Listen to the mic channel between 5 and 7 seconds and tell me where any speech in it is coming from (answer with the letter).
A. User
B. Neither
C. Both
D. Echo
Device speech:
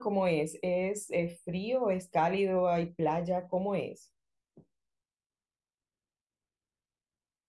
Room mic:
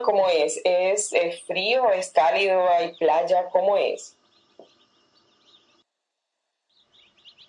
B